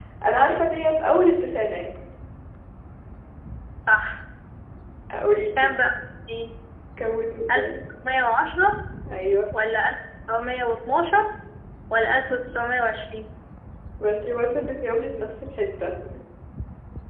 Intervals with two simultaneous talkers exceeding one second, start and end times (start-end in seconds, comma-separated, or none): none